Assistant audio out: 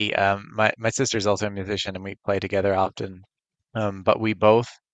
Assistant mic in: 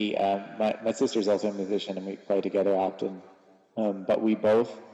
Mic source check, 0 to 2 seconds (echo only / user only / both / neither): echo only